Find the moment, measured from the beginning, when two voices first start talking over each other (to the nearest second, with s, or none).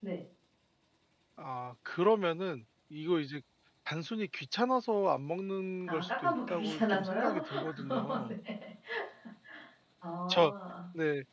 6 s